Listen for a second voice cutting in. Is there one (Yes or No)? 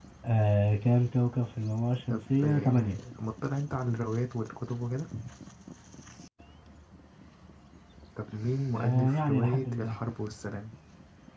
Yes